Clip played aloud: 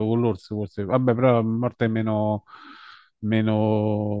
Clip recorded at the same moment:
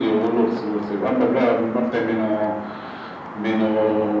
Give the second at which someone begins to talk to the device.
none

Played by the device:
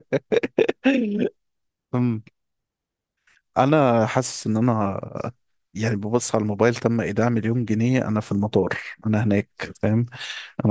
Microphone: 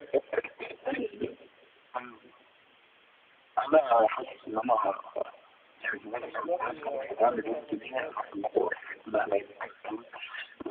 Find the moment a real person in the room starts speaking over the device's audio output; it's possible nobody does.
6.2 s

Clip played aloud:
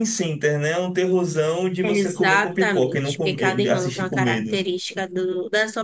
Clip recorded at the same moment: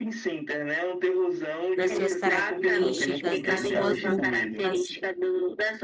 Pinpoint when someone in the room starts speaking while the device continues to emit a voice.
1.7 s

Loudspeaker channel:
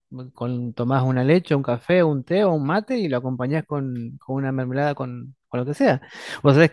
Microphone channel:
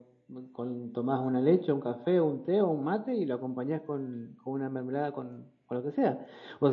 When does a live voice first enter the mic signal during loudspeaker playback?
none

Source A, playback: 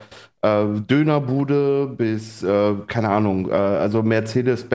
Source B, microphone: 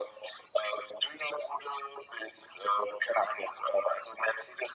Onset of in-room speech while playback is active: none

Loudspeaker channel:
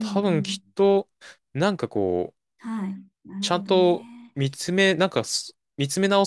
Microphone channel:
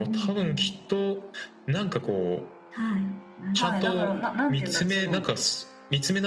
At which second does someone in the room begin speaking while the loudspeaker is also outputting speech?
3.5 s

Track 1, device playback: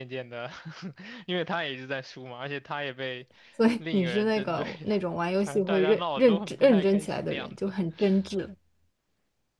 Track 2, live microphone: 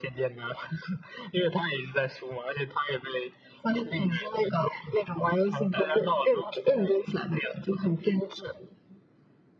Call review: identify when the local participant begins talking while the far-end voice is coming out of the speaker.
none

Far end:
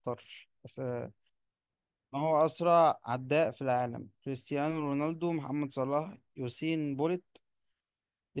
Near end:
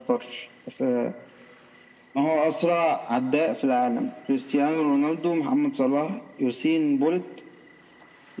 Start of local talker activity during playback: none

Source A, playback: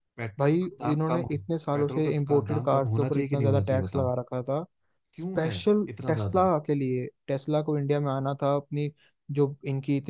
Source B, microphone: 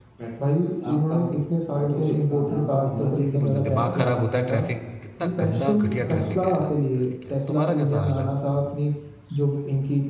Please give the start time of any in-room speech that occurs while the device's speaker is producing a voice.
3.2 s

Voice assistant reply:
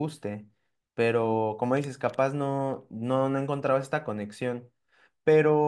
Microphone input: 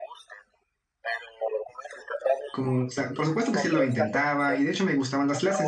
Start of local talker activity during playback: 2.5 s

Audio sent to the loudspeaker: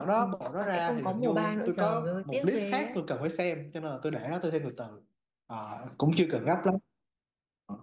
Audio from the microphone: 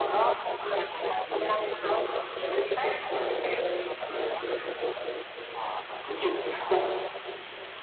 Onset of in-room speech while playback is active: none

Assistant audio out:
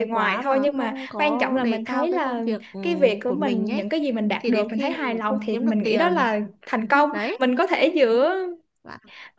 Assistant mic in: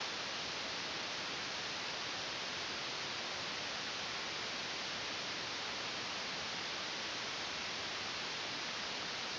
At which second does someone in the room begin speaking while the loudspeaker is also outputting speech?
none

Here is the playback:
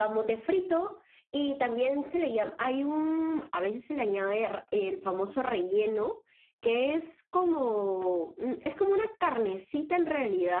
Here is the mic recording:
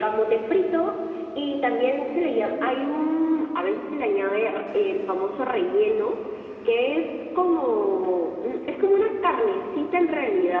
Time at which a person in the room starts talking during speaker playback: none

